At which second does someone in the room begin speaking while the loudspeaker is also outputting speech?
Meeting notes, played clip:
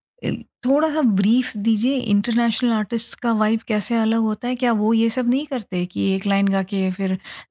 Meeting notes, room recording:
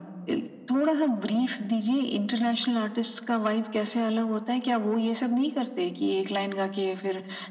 none

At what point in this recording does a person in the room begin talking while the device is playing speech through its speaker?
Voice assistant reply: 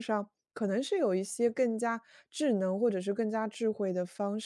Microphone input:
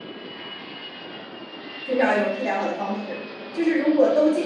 1.8 s

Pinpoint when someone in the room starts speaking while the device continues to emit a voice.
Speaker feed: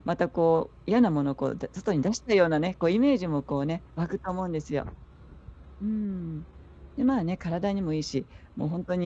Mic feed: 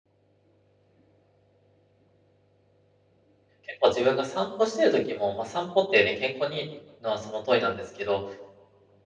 3.6 s

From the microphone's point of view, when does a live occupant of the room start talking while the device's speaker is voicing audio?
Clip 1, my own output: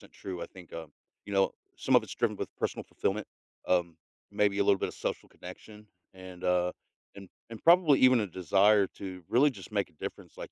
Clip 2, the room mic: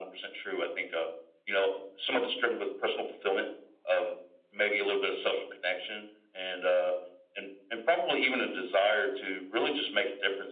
none

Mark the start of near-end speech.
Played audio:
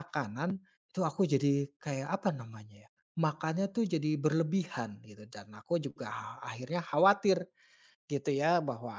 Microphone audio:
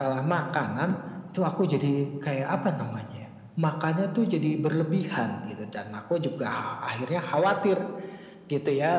none

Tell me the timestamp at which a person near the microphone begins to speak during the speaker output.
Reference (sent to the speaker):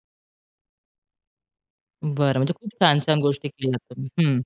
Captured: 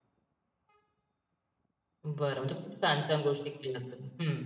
none

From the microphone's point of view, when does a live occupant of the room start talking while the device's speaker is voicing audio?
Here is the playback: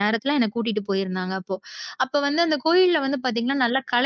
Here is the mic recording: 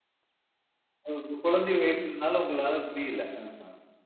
1.1 s

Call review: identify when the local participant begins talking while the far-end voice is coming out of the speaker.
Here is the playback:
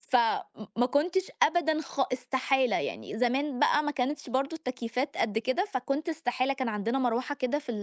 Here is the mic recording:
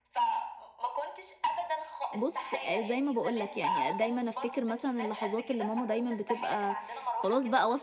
2.1 s

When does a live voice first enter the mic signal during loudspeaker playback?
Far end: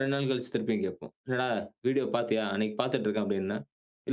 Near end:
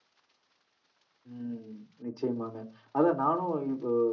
1.3 s

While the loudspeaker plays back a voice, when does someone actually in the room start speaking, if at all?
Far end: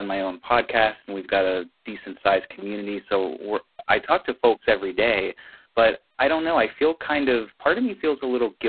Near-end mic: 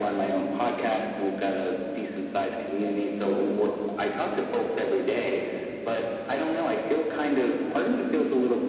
none

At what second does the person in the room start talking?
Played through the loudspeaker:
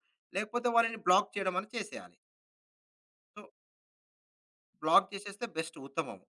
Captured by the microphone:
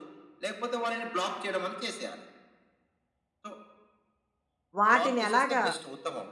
4.8 s

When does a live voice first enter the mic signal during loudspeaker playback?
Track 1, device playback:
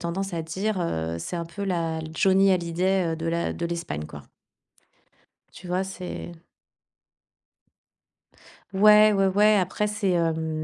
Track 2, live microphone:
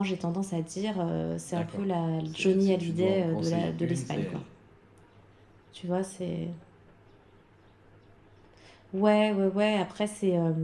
1.4 s

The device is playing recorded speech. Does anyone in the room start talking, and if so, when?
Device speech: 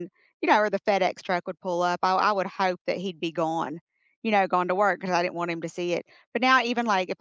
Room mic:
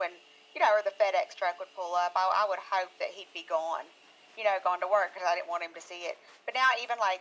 none

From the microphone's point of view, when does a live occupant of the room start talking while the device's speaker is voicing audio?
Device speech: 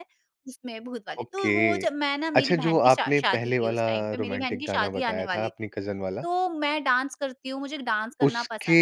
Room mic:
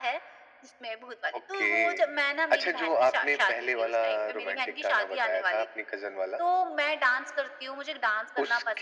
none

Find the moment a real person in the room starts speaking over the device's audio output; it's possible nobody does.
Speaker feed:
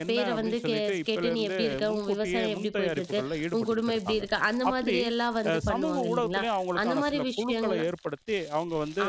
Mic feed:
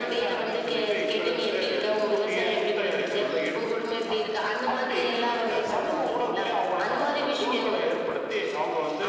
none

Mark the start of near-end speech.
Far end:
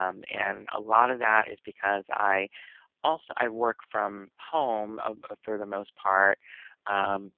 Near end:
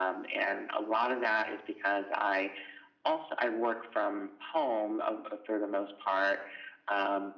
none

